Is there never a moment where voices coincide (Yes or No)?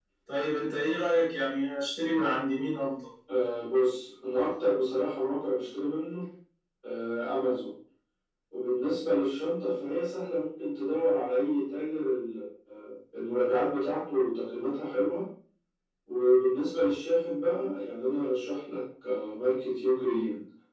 Yes